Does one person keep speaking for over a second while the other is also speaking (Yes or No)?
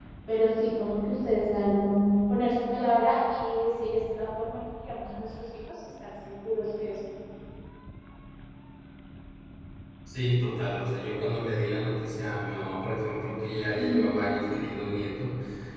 No